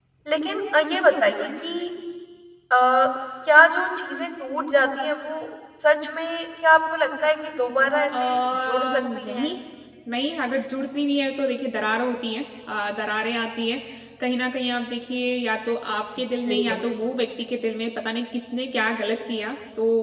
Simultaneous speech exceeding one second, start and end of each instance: 8.1-9.5

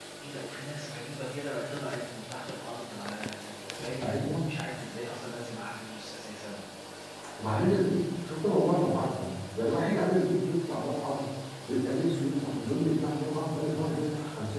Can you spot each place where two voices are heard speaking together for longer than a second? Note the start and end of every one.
none

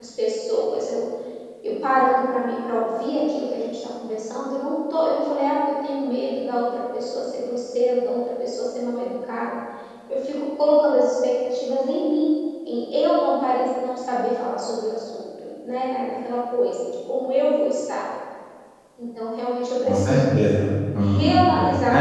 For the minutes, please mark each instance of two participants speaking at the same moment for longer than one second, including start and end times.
none

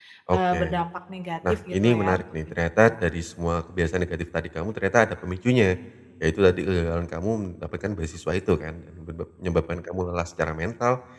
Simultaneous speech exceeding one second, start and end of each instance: 1.5-2.9

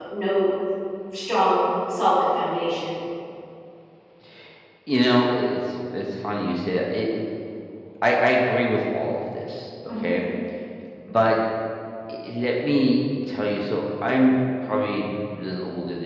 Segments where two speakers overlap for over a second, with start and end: none

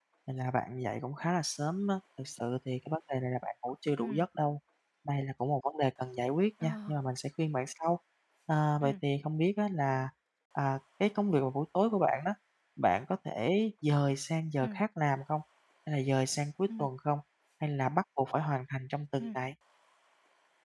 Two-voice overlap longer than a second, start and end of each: none

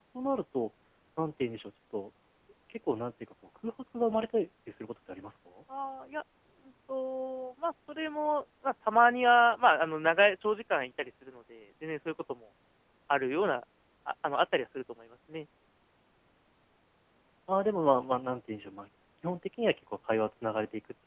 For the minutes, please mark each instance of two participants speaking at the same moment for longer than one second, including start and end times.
none

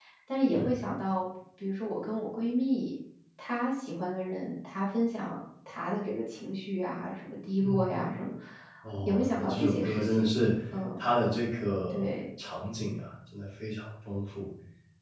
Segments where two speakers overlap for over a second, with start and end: 9.0-10.3

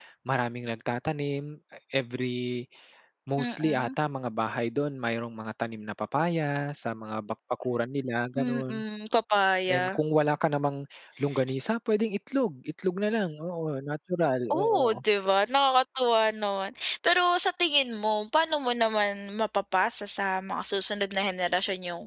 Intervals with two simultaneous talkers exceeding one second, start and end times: none

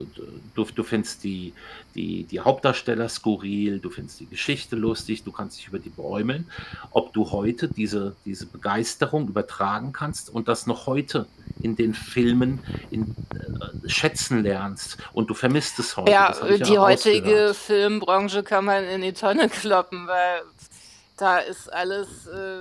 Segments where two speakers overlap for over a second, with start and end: 16.1-17.5

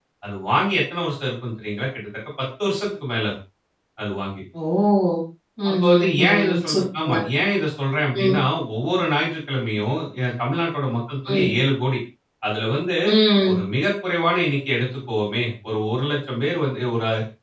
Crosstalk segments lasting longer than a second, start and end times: 5.7-7.0

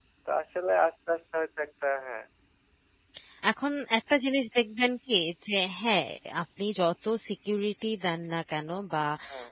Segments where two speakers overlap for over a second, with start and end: none

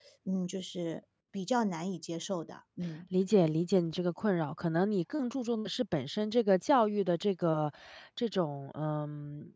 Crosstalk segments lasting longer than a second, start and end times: none

